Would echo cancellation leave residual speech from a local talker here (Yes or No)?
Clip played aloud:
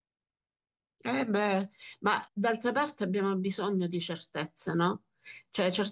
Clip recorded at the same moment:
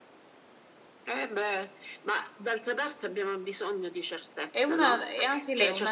Yes